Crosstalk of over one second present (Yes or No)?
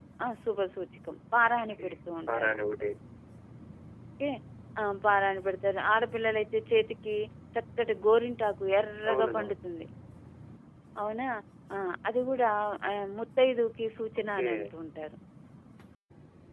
No